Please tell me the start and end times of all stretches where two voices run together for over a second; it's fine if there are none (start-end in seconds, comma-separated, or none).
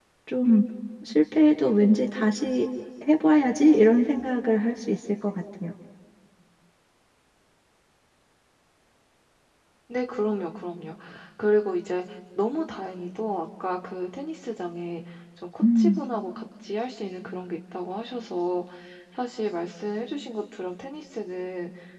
none